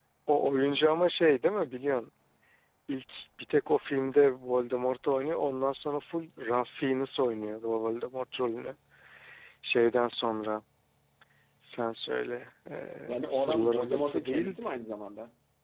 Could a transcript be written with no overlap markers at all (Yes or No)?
No